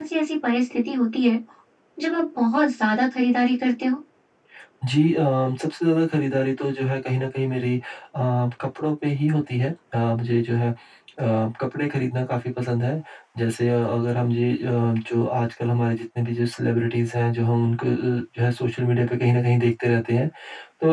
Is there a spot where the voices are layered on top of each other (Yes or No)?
No